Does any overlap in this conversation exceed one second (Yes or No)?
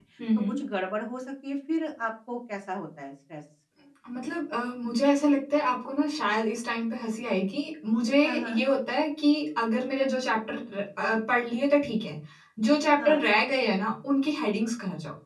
No